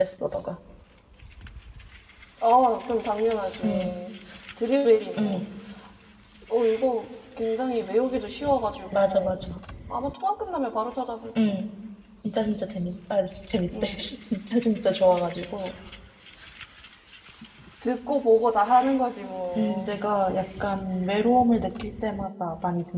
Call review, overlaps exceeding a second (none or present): none